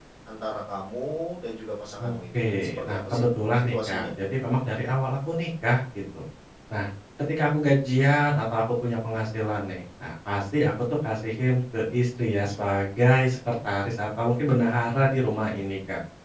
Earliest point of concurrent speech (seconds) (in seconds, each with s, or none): 2.0 s